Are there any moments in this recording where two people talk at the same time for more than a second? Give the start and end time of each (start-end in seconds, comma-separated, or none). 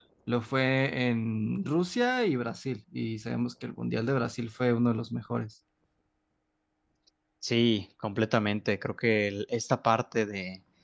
none